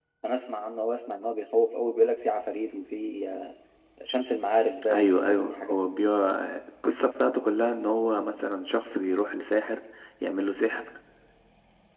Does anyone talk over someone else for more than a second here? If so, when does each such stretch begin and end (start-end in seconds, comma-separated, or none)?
4.9-6.1